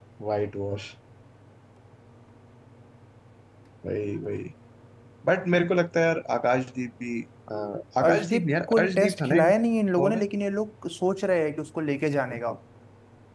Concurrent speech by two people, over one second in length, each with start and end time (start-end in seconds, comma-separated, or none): 8.0-9.5